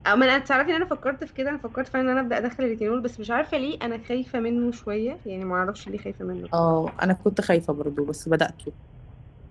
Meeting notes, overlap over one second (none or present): none